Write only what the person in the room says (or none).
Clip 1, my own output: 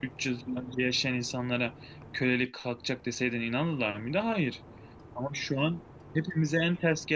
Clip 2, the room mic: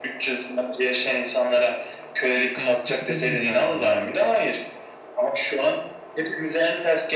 Yani kapitalizm derdim herhalde.